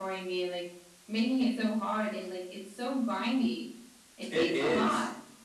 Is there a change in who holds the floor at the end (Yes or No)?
Yes